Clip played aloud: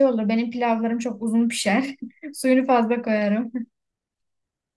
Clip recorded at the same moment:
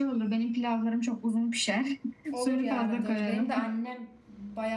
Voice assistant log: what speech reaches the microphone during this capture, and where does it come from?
both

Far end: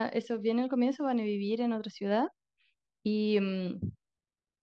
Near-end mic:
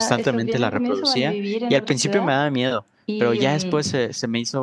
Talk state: both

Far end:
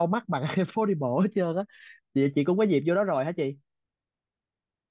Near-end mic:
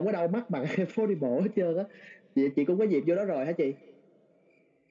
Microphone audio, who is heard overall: echo only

